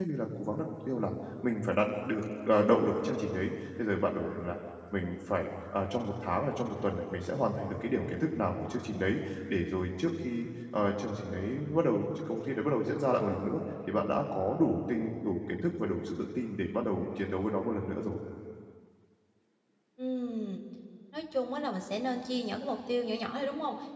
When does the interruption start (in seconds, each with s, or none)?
none